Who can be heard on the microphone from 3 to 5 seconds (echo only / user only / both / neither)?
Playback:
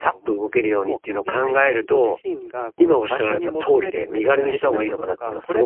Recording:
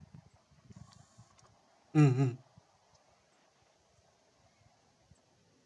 neither